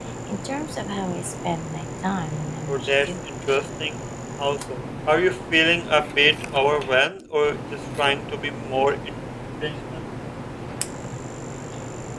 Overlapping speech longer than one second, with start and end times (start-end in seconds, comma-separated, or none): none